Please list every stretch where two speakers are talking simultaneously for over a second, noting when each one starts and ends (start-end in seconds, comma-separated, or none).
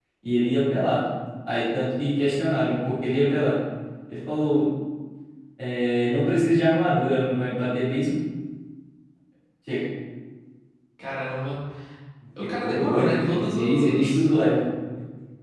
12.6-14.2